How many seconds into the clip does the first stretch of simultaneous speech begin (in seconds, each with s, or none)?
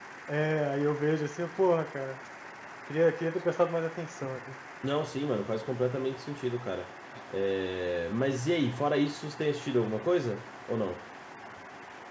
none